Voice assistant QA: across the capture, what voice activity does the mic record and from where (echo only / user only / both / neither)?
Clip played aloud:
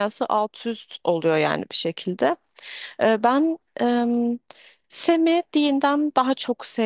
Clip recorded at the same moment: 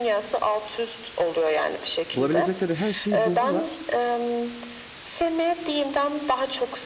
both